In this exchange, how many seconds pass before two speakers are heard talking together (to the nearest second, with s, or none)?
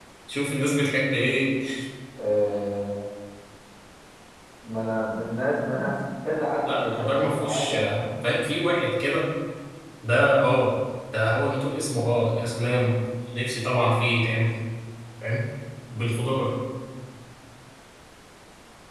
7 s